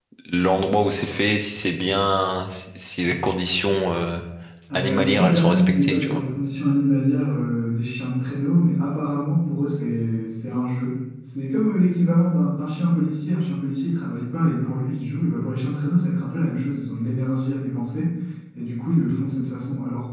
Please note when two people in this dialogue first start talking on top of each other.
4.7 s

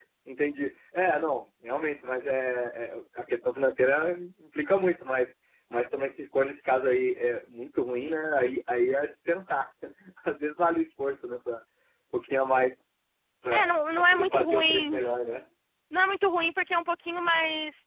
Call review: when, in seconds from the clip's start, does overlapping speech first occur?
13.5 s

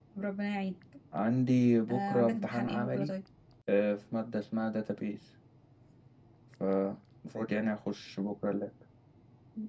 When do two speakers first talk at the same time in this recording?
1.9 s

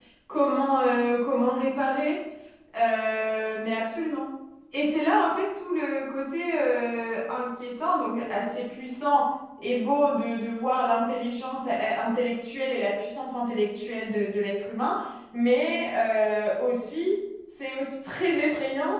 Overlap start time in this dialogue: none

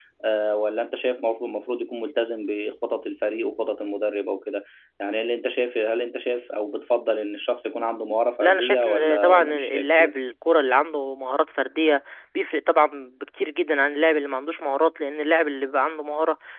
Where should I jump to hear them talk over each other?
8.4 s

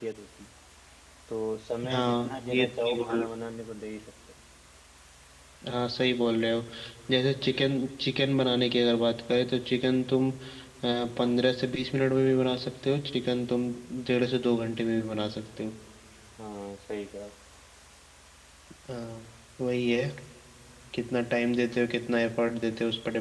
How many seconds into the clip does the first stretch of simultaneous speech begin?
1.9 s

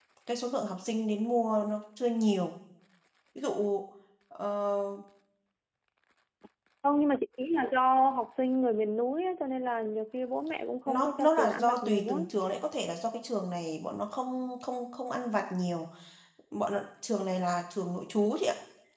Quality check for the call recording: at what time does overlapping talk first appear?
10.9 s

